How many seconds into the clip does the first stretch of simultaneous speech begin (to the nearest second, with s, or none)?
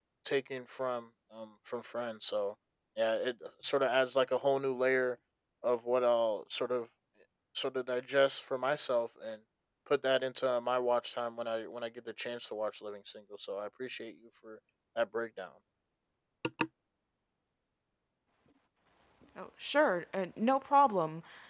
none